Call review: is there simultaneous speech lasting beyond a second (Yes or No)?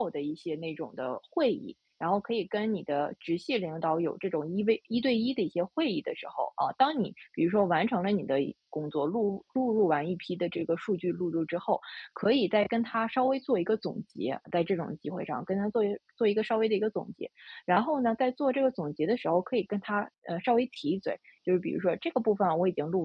No